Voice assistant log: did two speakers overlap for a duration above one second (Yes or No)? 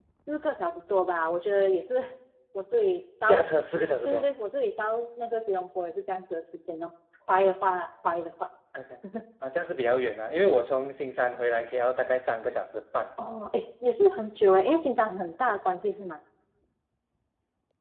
No